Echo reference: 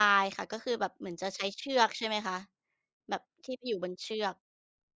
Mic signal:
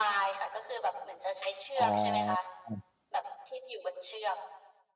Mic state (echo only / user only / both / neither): both